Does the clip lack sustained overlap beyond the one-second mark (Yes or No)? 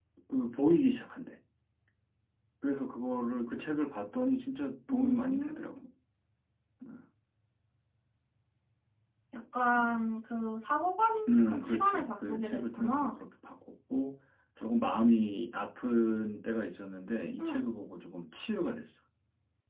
No